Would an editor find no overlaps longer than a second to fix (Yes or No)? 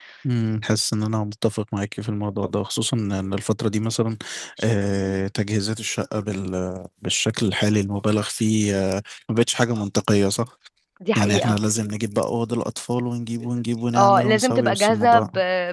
No